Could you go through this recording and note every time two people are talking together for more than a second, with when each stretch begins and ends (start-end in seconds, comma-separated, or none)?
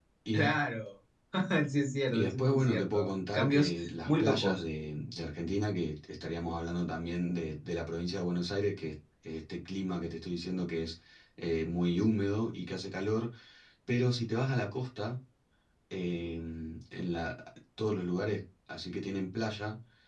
2.1-4.6